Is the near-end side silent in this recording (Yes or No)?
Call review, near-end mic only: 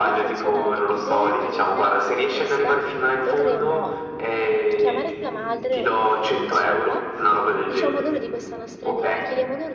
No